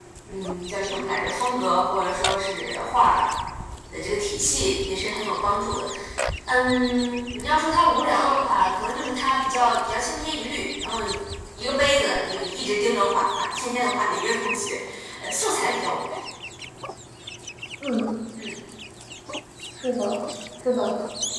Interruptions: none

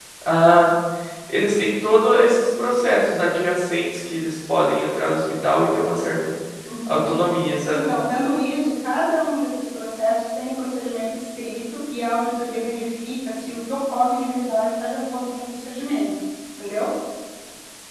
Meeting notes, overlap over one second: none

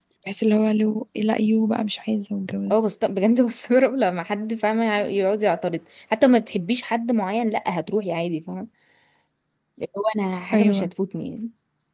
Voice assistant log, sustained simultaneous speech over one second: none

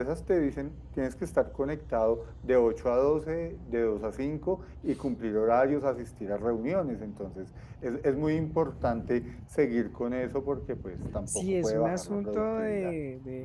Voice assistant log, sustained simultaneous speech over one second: present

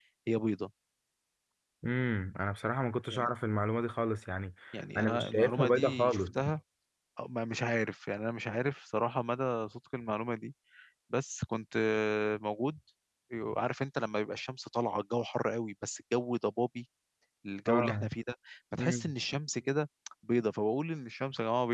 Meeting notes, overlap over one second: present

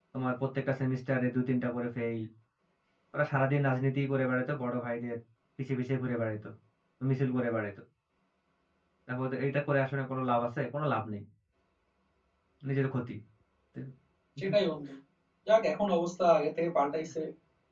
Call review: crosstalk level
none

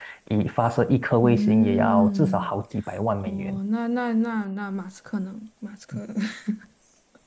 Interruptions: present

